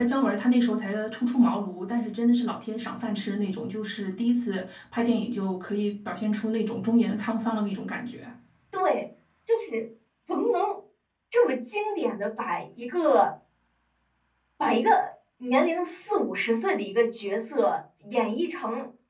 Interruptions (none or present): none